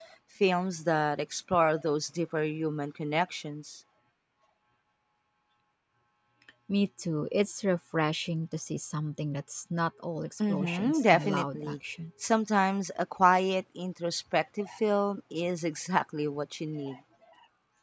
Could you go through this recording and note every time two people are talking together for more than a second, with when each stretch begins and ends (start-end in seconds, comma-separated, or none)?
10.5-11.8